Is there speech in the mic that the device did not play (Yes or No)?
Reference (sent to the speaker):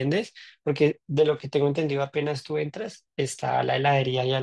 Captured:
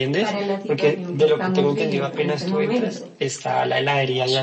Yes